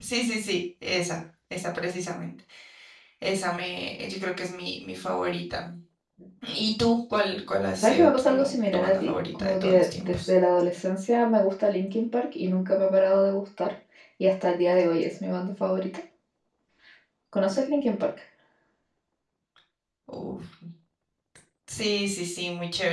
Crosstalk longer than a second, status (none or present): present